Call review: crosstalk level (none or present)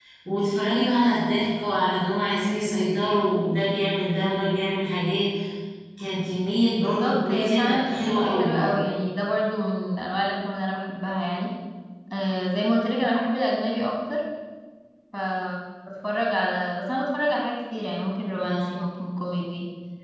present